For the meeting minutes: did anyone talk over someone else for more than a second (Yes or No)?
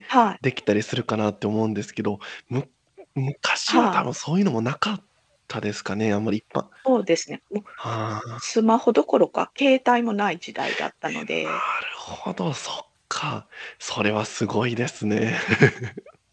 No